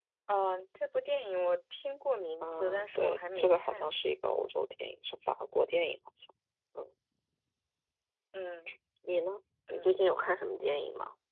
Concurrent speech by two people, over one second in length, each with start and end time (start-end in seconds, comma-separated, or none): 2.4-3.9